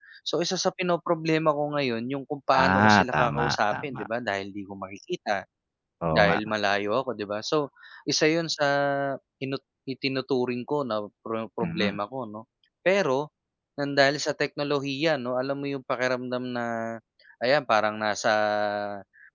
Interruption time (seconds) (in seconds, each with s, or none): 2.6 s